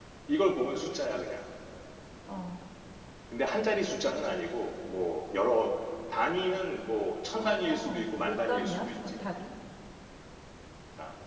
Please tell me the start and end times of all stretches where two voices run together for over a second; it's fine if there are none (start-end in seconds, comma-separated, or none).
7.4-9.1